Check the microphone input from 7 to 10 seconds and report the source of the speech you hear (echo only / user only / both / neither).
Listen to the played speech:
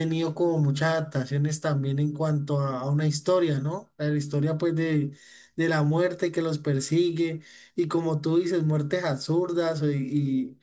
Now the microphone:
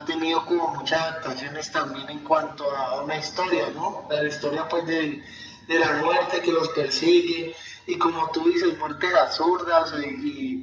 echo only